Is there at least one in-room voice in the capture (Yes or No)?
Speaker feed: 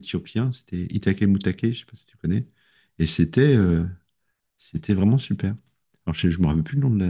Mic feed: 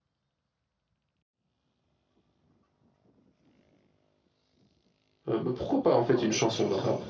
Yes